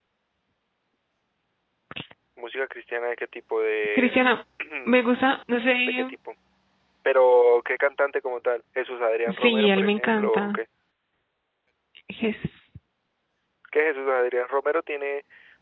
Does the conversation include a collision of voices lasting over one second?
Yes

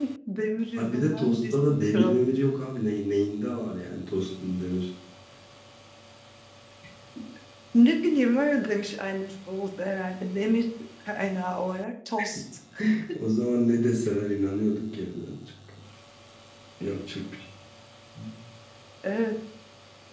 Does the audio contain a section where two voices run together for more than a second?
Yes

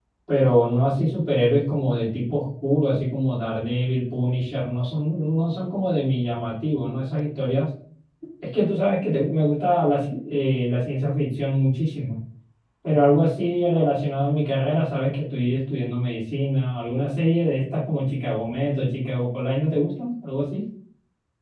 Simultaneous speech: No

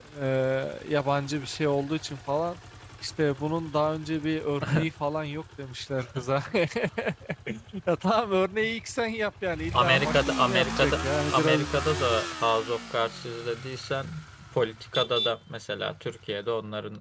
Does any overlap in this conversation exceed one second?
Yes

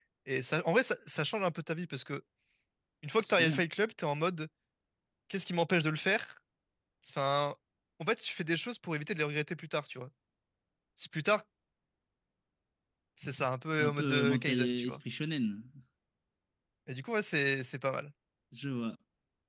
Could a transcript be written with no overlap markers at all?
No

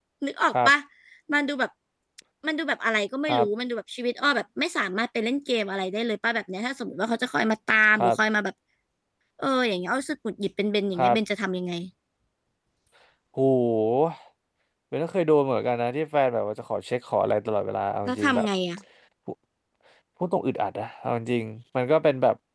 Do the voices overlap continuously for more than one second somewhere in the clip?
No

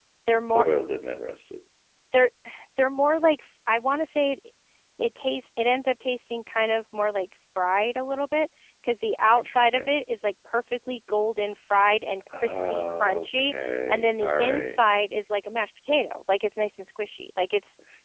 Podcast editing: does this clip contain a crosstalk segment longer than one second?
Yes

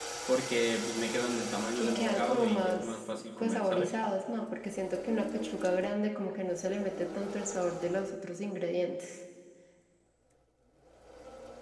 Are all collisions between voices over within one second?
No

